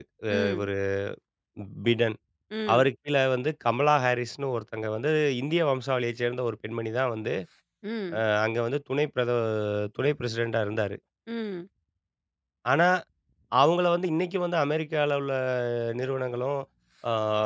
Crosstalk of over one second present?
No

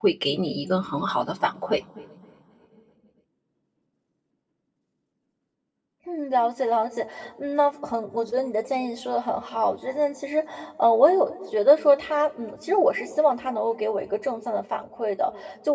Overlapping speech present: No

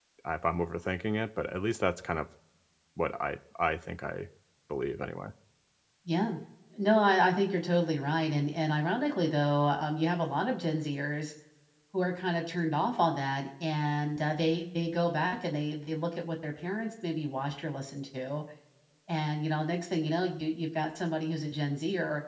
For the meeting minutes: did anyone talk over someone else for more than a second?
No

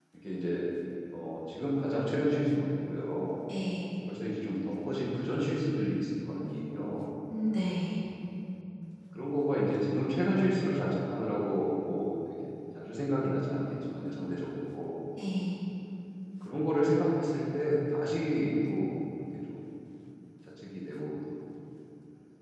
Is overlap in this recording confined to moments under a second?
Yes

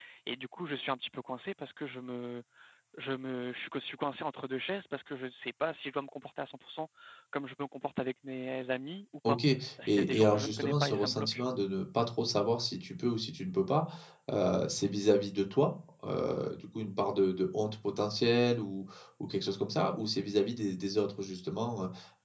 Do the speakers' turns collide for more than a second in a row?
Yes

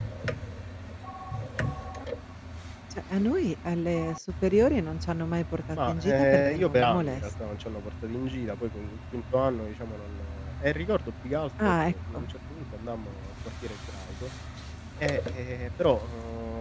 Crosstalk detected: Yes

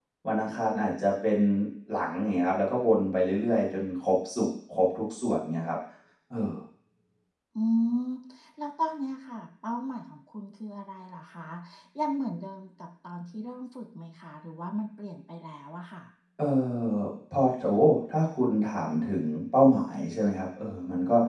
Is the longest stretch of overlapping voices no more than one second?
Yes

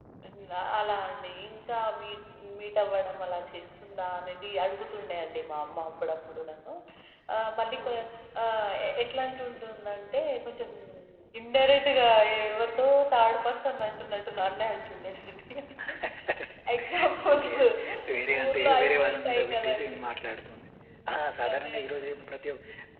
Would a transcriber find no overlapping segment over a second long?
No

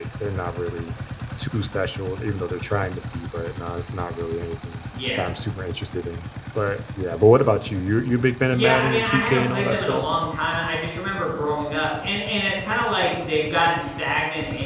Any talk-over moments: Yes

